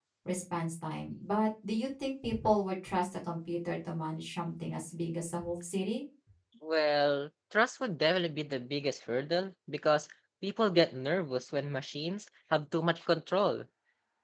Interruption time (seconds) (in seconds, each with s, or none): none